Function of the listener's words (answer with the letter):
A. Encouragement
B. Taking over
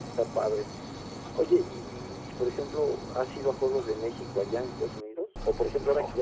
A